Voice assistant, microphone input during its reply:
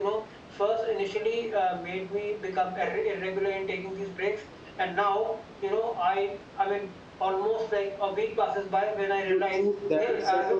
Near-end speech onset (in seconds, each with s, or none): 9.2 s